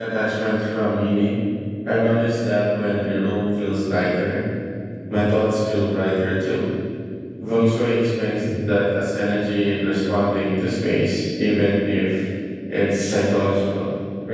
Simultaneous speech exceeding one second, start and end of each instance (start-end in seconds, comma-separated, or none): none